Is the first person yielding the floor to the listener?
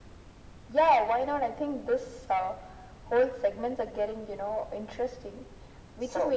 No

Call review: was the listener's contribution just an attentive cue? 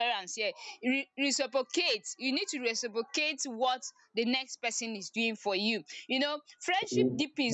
Yes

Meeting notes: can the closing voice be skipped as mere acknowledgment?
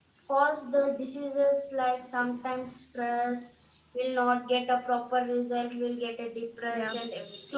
No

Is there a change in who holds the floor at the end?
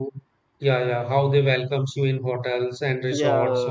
No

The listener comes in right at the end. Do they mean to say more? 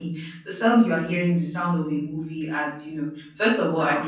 No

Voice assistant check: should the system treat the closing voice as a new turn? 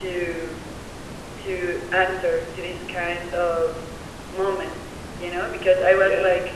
No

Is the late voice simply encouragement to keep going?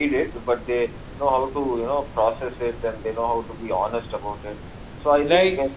Yes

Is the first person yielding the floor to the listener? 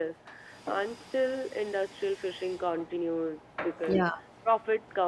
No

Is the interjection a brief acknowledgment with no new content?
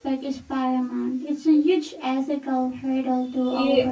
No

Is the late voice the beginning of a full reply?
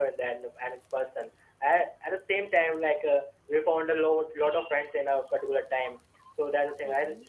No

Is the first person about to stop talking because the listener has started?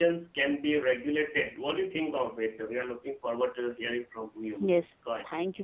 Yes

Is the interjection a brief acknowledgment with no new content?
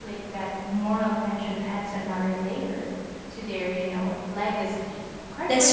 No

